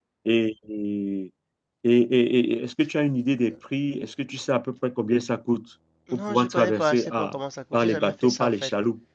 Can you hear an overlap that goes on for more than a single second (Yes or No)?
Yes